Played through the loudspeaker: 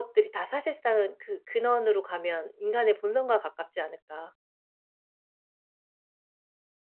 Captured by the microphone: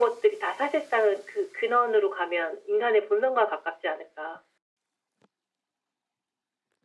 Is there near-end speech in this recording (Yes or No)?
No